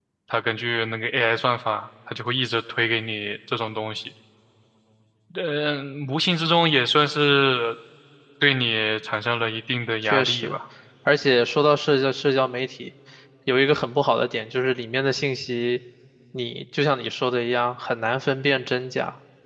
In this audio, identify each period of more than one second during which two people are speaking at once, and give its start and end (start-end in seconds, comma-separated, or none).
none